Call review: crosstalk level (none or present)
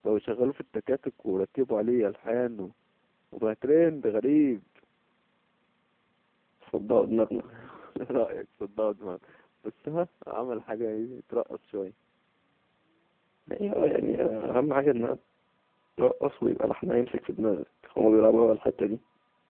none